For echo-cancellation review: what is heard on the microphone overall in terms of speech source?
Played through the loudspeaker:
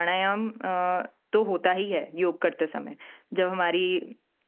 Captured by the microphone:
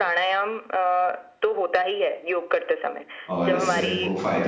both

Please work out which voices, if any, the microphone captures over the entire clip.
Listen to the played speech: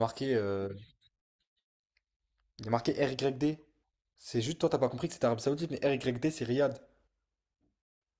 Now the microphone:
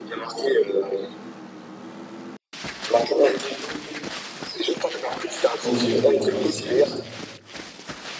both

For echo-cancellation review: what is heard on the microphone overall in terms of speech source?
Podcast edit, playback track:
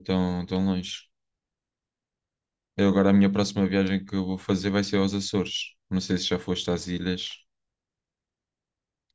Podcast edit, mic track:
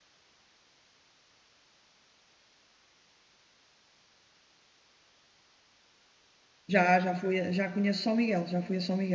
user only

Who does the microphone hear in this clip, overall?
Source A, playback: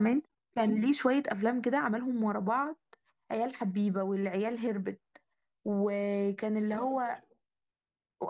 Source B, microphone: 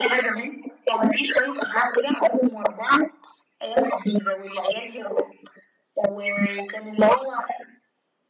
echo only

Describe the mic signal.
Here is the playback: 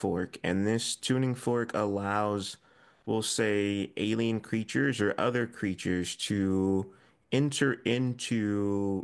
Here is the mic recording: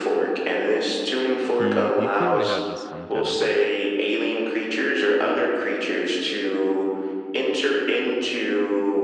both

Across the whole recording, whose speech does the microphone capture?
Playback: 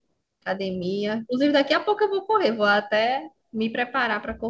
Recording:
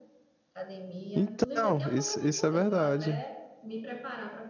both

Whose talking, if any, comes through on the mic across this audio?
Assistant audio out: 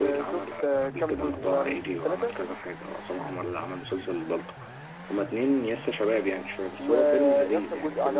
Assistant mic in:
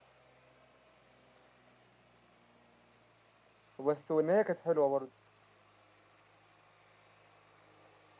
user only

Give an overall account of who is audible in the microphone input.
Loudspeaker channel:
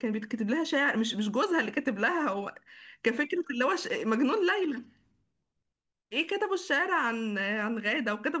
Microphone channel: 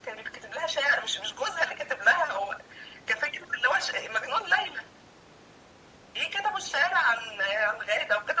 echo only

